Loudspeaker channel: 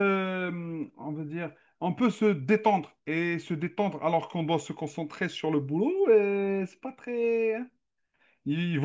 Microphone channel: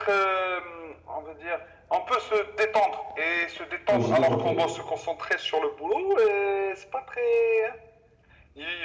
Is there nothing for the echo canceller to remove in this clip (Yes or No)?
No